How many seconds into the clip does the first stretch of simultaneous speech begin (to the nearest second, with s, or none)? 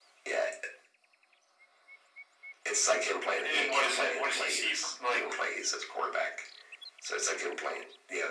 3 s